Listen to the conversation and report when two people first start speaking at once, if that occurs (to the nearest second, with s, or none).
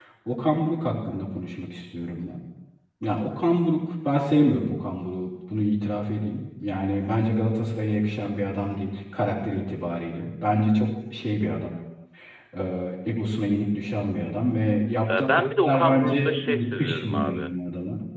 15 s